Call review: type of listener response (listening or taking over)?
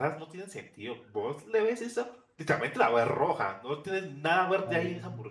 taking over